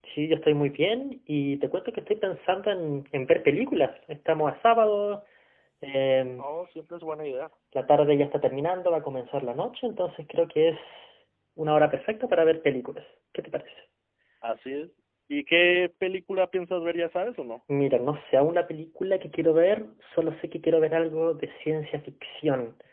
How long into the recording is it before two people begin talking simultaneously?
none

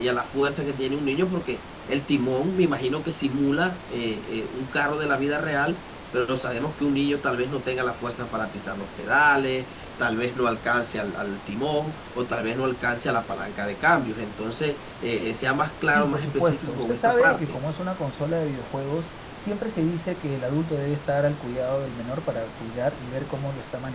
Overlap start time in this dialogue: 16 s

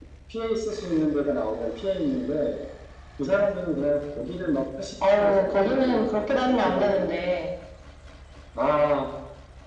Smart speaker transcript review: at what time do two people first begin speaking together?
5 s

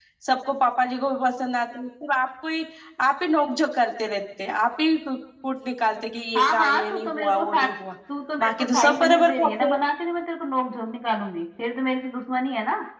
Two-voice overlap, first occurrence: 6 s

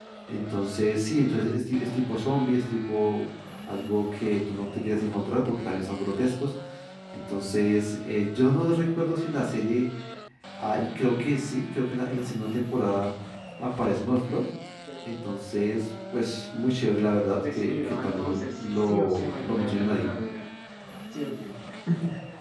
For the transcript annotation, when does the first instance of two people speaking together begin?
17 s

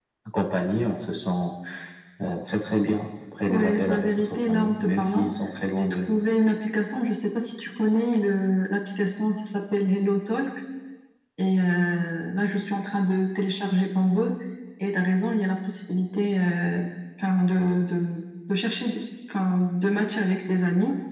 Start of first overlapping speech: 3 s

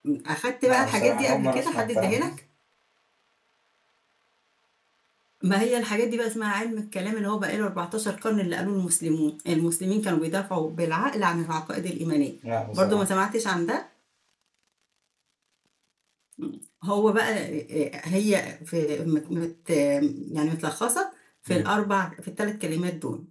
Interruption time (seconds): 1 s

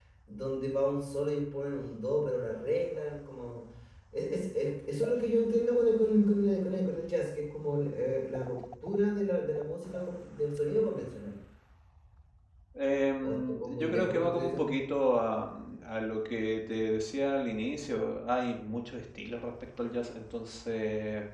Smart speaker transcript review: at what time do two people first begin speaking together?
13 s

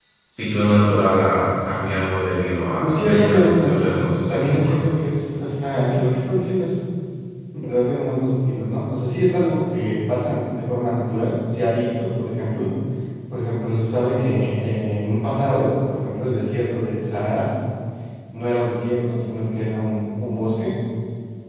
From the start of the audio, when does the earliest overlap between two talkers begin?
3 s

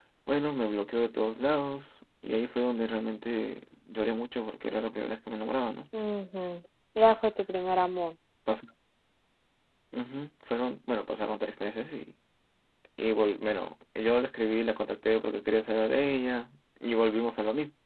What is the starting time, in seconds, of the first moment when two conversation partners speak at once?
none

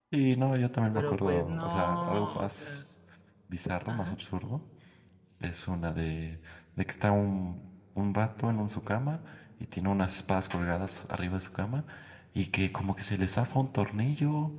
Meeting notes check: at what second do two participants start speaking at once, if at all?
1 s

